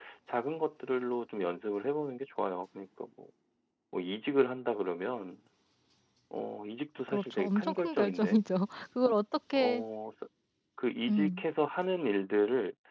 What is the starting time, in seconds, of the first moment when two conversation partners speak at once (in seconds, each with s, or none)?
7.1 s